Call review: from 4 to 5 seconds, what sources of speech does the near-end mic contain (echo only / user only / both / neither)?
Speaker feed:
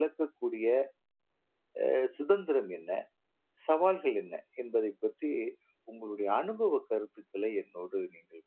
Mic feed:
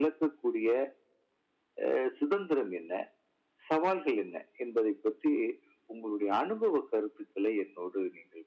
echo only